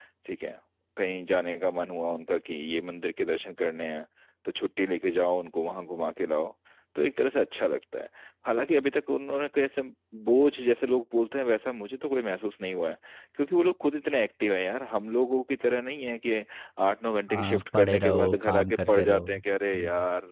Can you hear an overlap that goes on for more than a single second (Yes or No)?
Yes